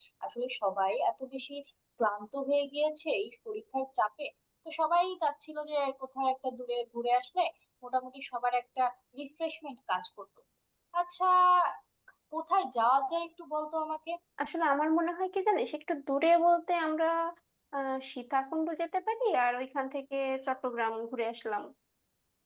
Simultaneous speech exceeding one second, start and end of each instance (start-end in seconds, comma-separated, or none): none